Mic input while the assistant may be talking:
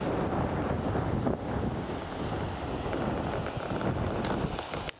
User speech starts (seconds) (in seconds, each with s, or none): none